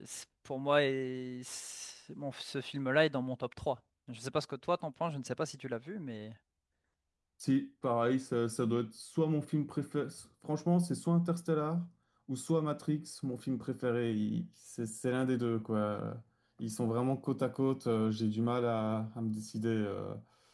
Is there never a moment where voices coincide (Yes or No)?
Yes